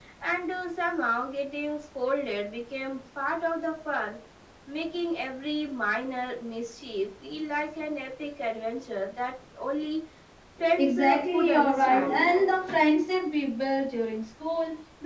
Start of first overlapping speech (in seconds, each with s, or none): 10.8 s